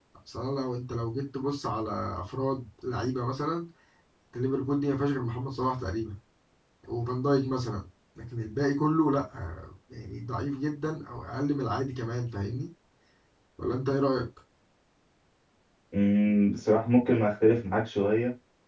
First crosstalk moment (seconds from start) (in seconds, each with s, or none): none